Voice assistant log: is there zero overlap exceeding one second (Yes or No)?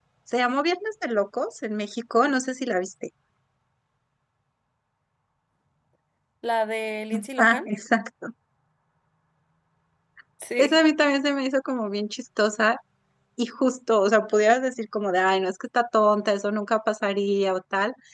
Yes